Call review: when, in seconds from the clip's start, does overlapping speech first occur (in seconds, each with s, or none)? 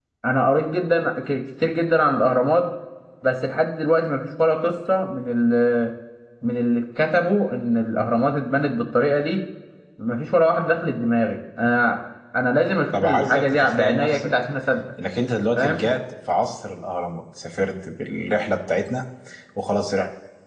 12.9 s